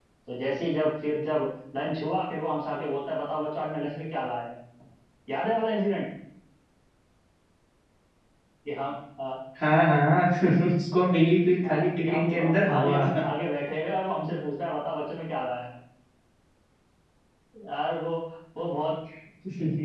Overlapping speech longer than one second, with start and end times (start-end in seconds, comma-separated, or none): 11.6-13.0